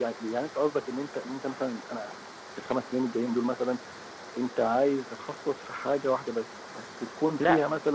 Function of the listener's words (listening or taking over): taking over